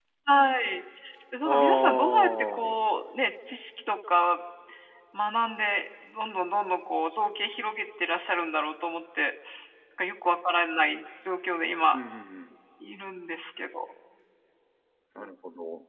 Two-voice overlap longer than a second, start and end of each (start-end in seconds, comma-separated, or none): 1.4-2.8